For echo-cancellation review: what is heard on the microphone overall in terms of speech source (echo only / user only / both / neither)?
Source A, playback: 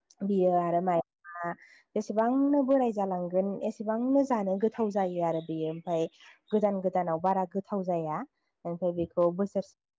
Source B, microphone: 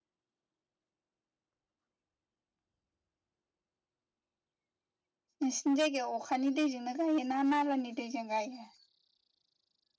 user only